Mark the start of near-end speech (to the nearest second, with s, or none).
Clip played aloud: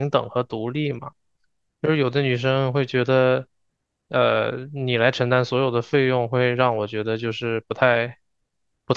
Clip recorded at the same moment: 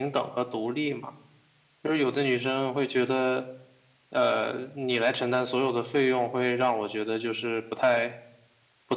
none